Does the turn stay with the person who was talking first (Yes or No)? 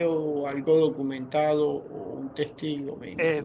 No